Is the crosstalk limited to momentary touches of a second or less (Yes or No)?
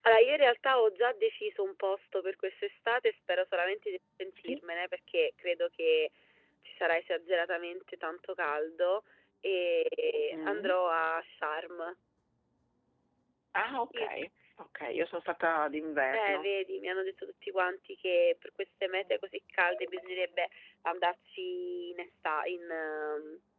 Yes